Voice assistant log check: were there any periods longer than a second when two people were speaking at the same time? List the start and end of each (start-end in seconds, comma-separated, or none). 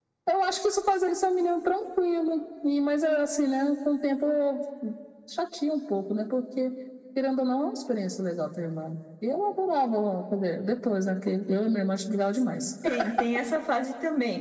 none